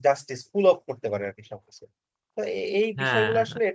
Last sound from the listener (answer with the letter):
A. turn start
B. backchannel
B